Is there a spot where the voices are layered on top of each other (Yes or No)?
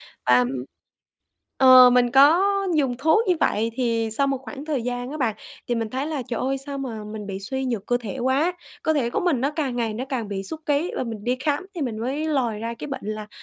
No